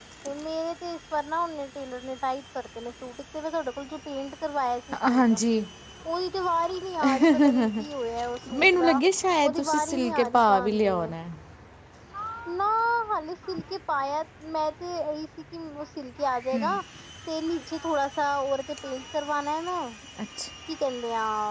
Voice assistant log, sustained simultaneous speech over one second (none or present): present